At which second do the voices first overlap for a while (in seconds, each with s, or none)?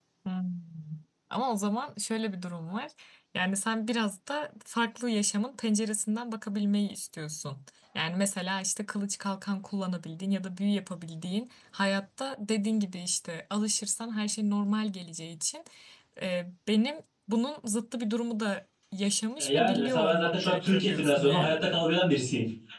19.4 s